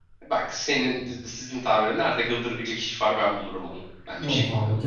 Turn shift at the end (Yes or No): Yes